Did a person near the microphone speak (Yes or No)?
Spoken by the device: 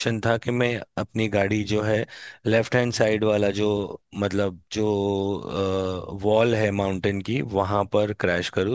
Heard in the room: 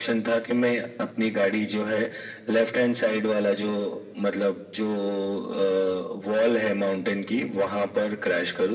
No